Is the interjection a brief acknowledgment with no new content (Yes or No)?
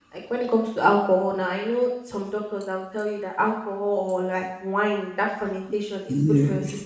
Yes